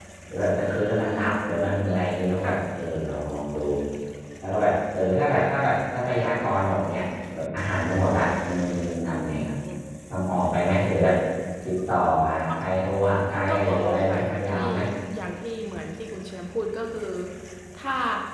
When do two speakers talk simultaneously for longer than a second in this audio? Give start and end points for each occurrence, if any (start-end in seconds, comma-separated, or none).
13.3-14.6